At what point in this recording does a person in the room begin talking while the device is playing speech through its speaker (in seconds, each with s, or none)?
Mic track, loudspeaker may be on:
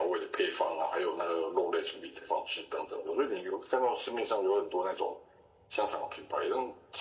none